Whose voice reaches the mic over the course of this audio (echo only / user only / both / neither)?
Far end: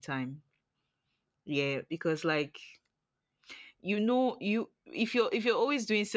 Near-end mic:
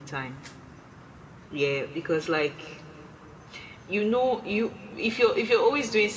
echo only